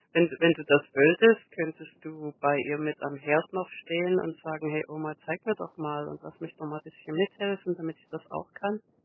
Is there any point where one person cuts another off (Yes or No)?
No